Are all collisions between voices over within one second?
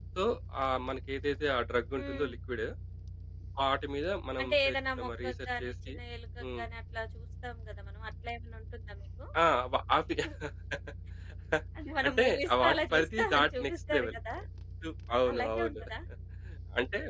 No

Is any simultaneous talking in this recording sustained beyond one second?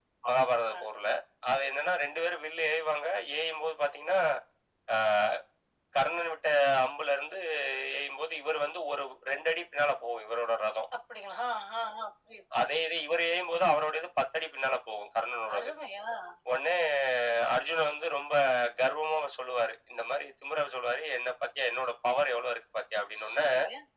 No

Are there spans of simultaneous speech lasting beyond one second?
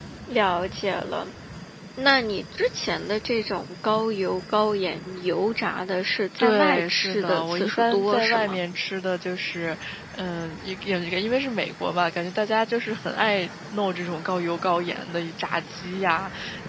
Yes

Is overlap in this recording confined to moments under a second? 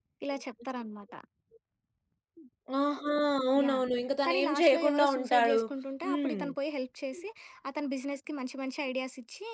No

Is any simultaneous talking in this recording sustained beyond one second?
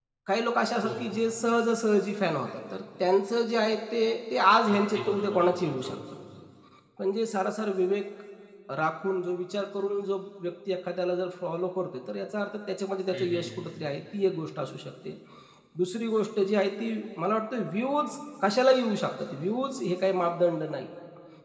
Yes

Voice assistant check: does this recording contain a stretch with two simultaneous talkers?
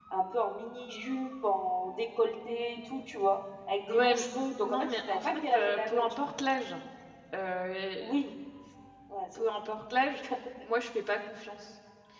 Yes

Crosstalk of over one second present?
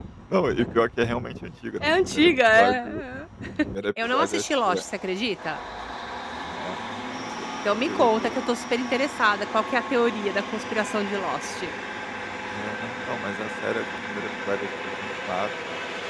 Yes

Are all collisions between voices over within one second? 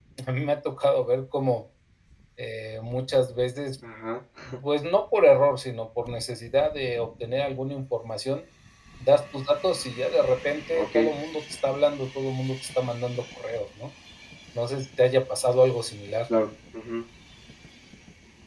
Yes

